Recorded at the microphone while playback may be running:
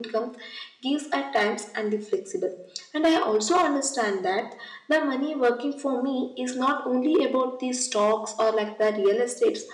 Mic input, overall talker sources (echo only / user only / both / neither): user only